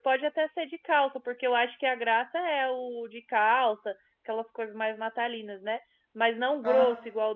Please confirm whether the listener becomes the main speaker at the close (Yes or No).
No